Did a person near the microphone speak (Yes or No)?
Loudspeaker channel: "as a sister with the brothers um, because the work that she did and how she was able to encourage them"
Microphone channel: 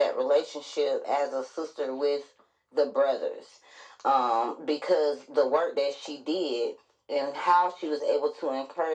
No